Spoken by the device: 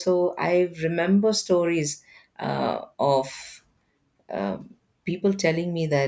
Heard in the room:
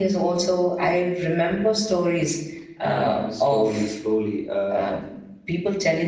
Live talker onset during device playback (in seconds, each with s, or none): 2.8 s